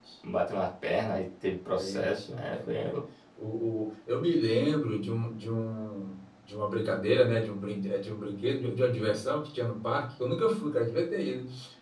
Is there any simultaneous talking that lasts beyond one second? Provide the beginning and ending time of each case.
1.7-3.0

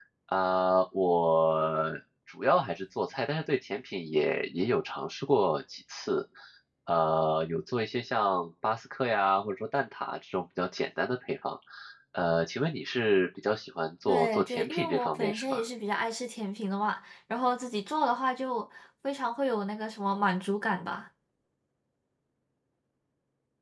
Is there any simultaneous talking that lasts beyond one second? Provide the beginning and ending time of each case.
14.1-15.6

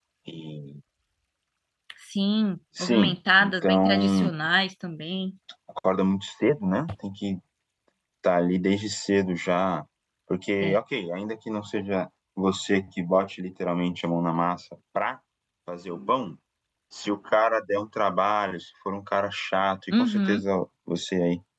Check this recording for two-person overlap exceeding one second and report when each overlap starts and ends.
2.8-4.3

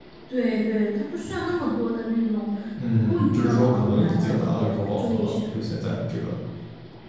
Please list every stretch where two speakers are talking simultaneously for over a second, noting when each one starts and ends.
3.0-5.7

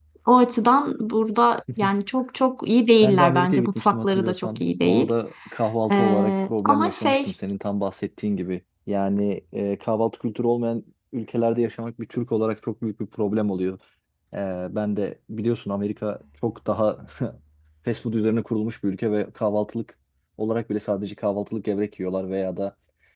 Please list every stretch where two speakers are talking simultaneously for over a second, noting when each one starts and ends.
3.0-5.1, 5.9-7.2

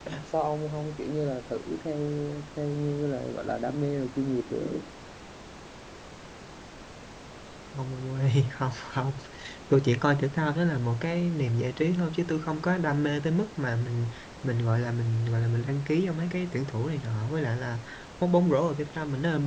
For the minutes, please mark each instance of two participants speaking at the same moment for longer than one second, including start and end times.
none

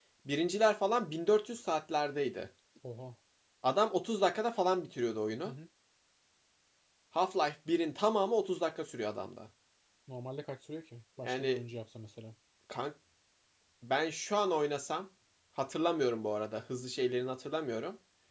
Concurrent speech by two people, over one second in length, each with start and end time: none

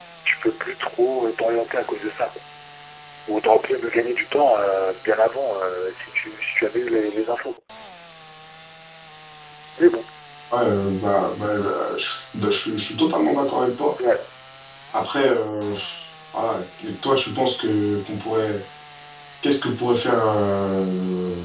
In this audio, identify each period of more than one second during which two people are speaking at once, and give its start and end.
none

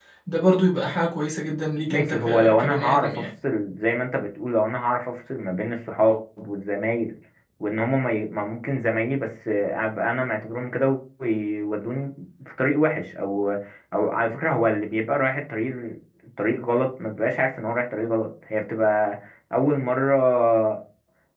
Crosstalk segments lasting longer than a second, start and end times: 1.9-3.3

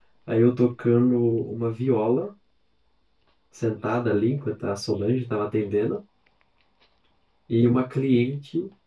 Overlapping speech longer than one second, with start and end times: none

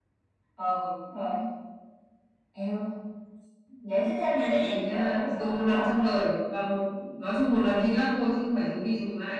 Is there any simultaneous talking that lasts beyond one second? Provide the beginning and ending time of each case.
4.5-6.1

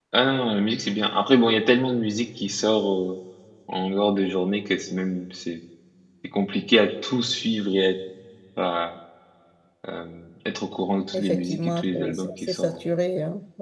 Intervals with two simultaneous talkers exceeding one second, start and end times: 11.1-12.8

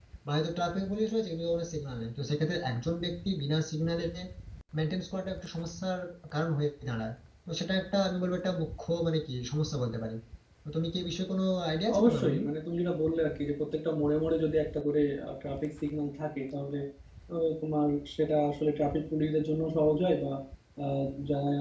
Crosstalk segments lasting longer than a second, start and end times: none

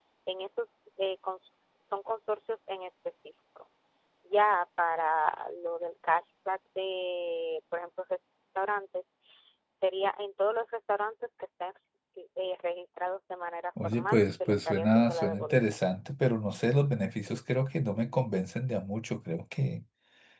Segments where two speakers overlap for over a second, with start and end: 13.8-15.6

